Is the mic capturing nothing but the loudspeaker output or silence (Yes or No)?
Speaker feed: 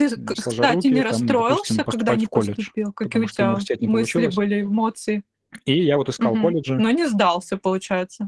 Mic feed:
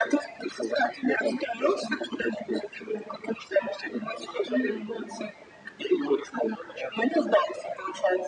No